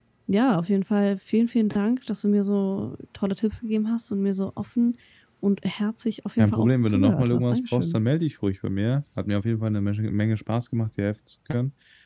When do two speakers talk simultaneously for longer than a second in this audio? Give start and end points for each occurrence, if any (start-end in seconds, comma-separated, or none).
6.4-8.0